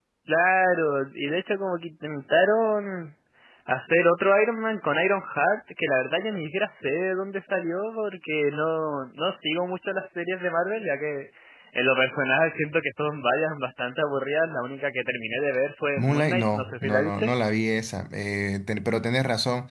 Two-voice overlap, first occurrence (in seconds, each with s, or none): 16.0 s